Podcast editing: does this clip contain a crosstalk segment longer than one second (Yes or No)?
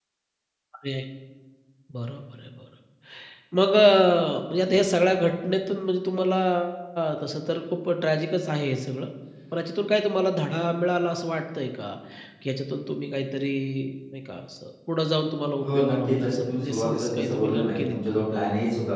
Yes